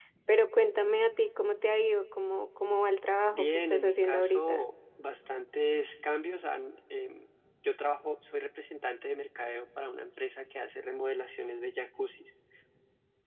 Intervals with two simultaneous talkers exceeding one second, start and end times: 3.3-4.6

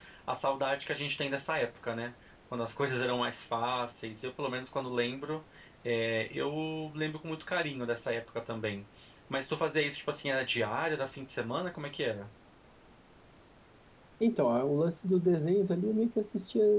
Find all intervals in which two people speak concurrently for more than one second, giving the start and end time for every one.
none

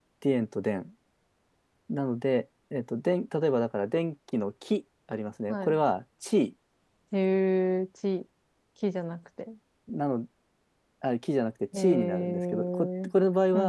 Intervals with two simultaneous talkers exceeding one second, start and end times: 11.8-13.1

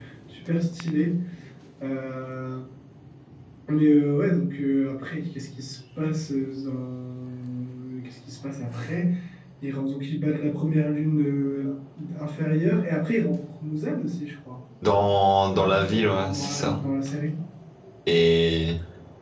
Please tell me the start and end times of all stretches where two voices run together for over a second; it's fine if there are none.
15.5-16.8

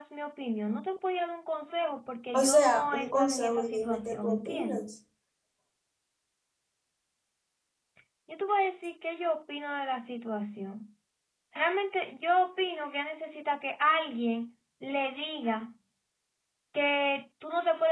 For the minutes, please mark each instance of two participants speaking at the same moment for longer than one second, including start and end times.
2.3-4.9

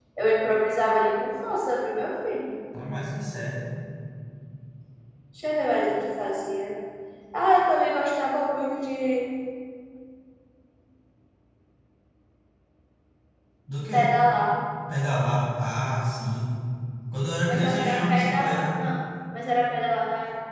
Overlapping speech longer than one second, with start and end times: 17.5-18.8

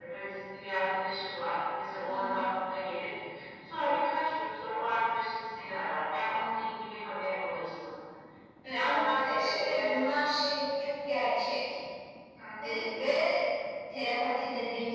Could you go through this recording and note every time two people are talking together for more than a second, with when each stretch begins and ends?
8.7-10.0

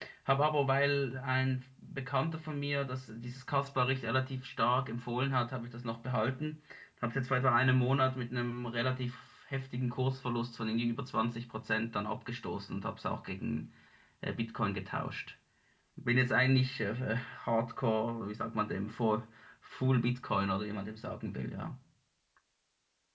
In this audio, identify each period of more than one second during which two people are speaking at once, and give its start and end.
none

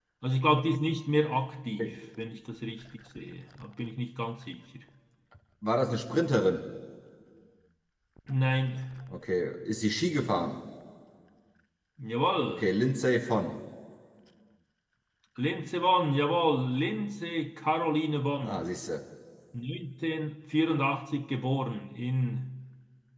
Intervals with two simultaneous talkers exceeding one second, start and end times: none

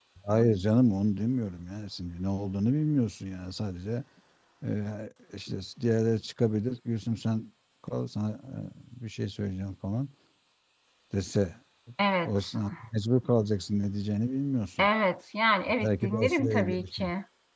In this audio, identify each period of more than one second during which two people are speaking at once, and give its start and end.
15.8-17.0

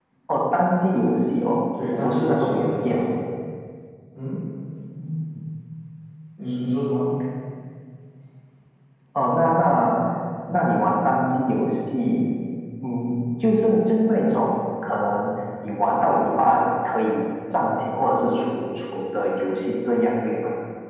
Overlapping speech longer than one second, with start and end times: 1.9-3.1

